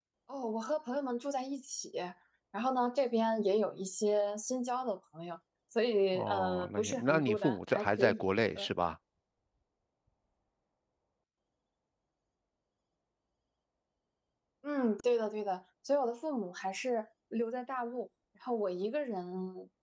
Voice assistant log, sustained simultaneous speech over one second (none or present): present